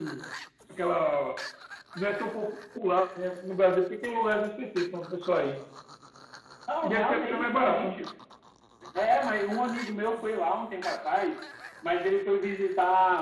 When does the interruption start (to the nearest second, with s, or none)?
7 s